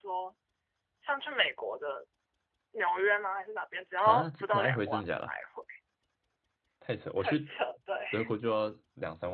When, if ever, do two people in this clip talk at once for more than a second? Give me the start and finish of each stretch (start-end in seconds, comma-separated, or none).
4.0-5.3